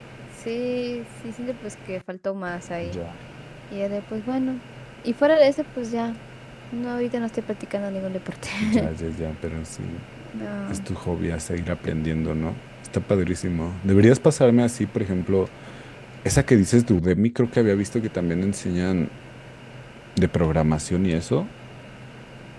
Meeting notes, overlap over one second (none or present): none